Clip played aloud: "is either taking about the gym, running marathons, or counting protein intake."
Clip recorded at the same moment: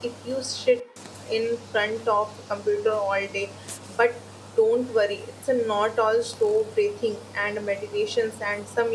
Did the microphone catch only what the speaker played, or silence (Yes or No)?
No